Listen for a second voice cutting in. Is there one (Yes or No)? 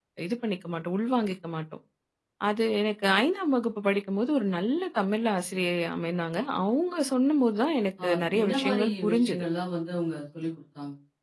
Yes